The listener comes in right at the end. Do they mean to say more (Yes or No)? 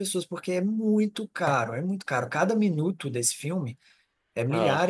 No